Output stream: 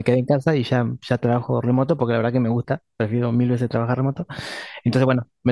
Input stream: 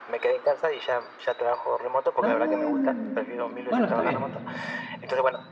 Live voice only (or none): Ah, bien. Bueno, está bien,